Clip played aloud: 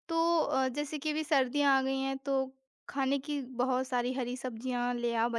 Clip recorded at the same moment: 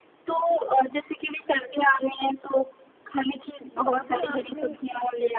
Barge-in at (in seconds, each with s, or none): 3.8 s